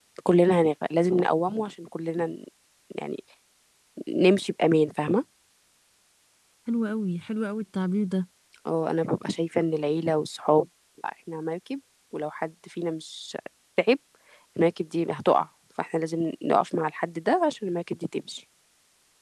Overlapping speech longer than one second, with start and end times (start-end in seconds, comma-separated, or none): none